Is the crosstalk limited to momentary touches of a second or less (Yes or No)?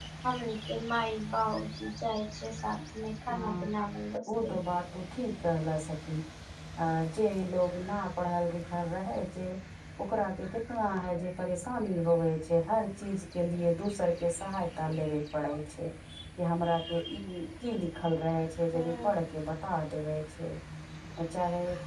Yes